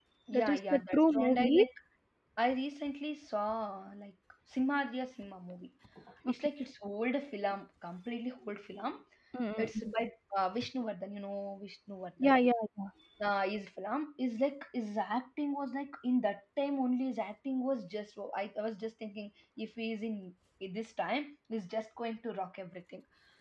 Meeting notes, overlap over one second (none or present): present